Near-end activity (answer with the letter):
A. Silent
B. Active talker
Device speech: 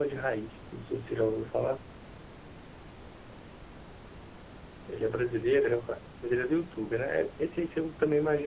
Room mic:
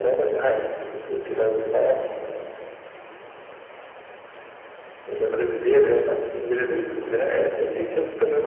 A